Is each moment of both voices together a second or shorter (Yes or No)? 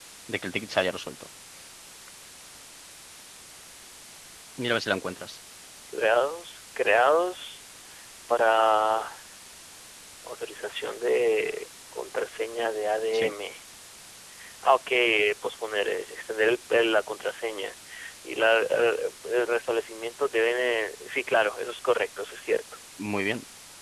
Yes